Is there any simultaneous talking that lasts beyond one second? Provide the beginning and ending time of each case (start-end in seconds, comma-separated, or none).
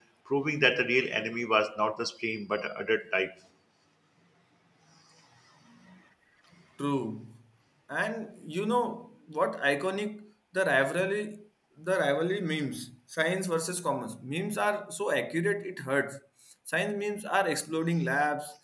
none